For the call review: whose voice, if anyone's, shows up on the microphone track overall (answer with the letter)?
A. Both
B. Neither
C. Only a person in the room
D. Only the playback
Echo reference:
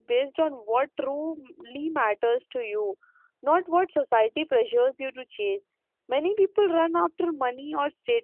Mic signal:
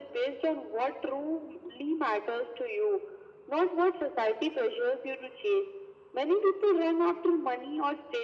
D